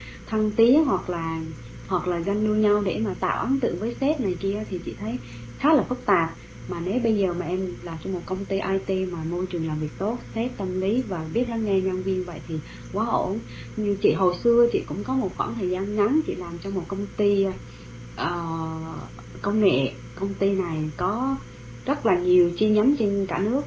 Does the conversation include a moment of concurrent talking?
No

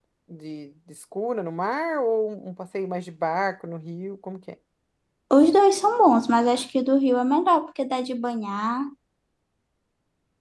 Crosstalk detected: No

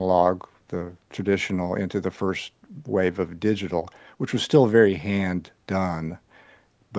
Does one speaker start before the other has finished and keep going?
No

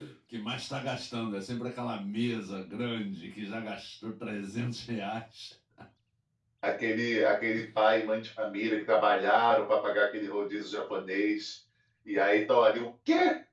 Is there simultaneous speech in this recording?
No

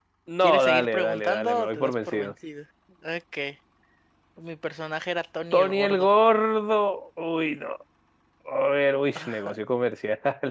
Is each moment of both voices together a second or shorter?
No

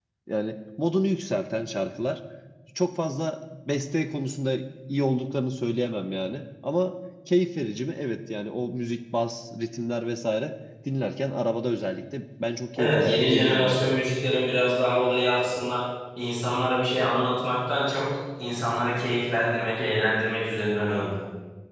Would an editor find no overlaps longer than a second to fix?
No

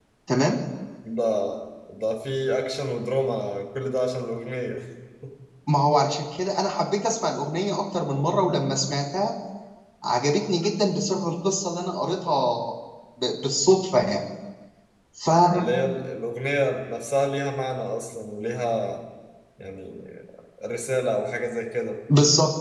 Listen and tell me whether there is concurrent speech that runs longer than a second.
No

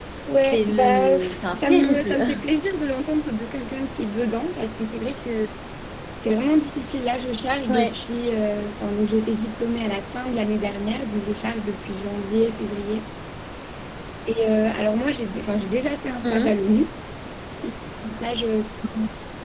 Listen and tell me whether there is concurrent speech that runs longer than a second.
Yes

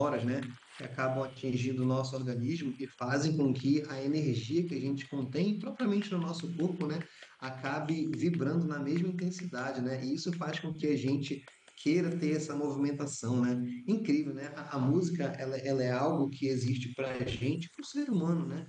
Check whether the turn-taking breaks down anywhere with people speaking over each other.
No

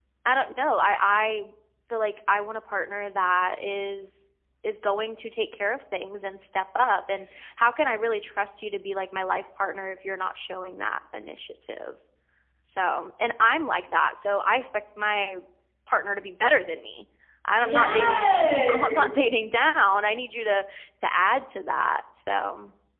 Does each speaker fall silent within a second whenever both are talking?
No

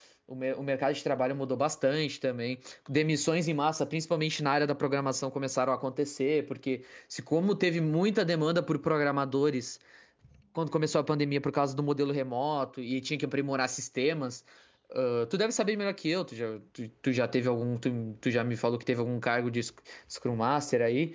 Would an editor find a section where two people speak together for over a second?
No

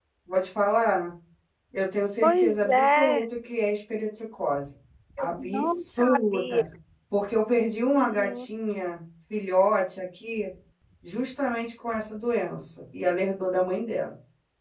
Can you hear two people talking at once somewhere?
Yes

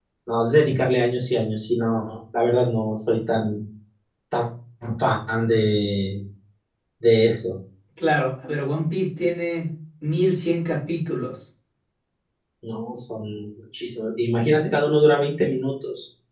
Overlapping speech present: No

